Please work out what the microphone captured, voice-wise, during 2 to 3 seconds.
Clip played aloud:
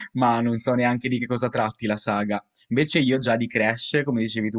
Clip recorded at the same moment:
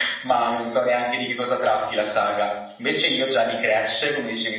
echo only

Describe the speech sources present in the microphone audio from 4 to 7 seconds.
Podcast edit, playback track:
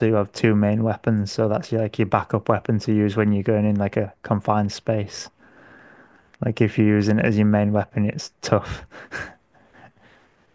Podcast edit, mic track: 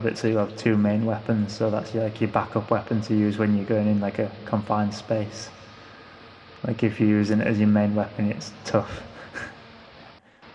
echo only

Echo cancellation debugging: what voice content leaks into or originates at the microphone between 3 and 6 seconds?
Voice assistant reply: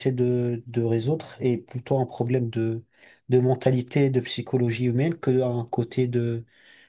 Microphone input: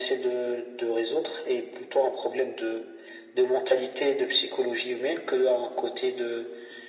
echo only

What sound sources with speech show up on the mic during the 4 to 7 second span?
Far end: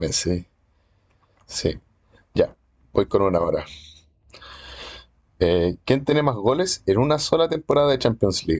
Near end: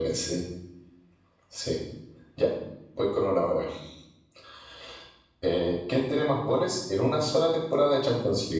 echo only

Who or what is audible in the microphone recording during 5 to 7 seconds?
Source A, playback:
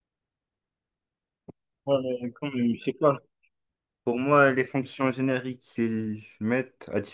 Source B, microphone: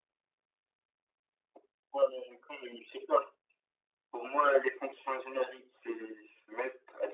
echo only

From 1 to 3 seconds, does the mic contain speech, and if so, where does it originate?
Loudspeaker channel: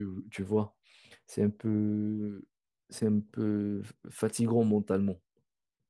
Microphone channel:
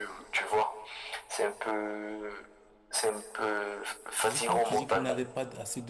echo only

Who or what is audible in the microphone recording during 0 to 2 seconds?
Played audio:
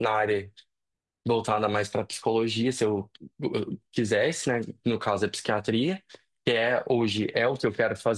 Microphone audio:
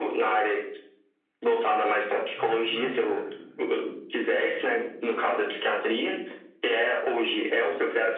echo only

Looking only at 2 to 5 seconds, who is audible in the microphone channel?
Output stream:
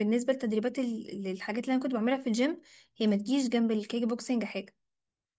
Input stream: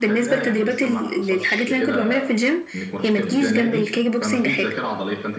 both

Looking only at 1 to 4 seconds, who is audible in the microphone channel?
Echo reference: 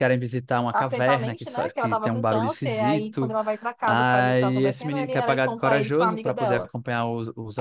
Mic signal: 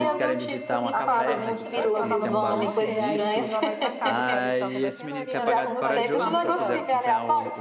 both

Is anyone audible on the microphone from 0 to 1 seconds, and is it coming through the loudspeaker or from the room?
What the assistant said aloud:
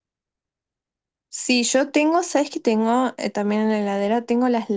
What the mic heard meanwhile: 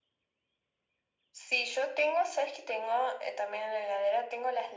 neither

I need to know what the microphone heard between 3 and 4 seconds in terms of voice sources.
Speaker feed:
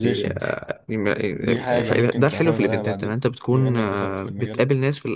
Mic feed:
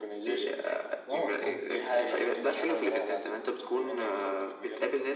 echo only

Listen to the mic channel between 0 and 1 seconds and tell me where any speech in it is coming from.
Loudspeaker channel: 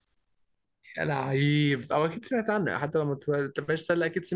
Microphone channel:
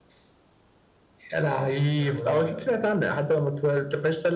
neither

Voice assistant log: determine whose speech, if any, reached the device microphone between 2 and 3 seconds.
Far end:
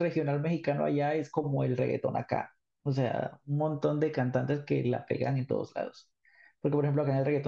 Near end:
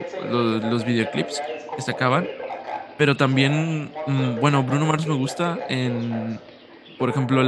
both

